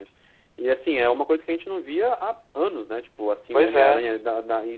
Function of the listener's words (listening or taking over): listening